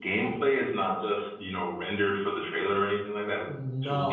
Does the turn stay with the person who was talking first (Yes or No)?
No